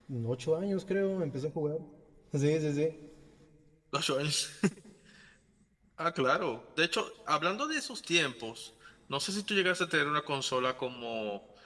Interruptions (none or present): none